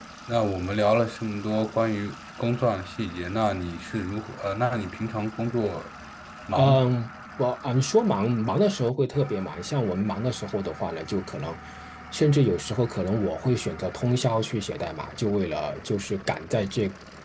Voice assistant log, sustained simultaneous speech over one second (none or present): none